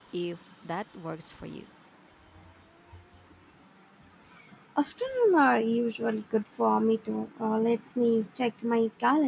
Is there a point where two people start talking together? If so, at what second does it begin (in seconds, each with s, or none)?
none